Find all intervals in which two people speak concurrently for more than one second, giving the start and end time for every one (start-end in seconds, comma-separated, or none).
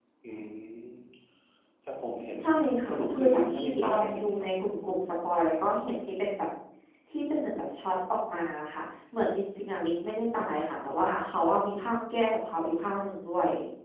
2.9-4.5